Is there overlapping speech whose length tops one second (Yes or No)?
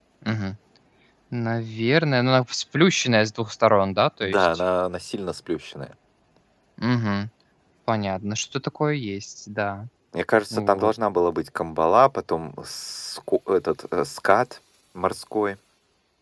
No